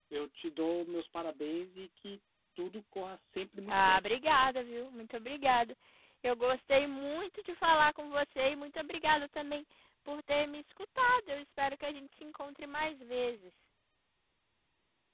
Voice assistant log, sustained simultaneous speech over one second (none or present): none